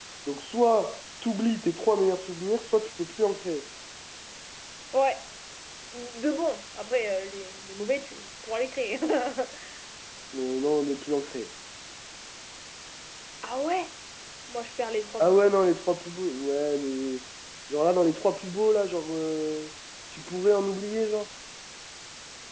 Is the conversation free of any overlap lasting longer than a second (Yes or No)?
Yes